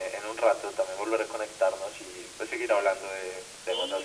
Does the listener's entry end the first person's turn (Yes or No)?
Yes